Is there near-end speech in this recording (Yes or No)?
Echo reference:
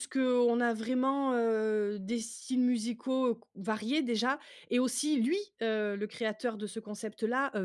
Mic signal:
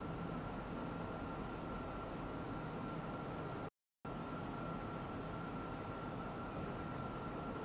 No